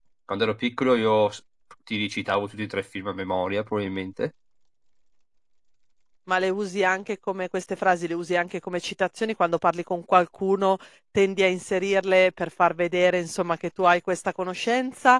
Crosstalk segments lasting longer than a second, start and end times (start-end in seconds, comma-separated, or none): none